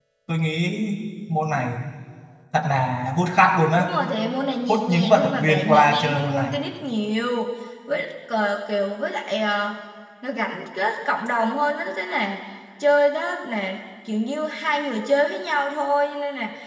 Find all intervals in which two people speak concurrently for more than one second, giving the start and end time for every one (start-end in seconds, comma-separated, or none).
4.7-6.6